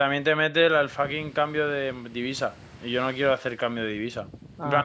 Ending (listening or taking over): listening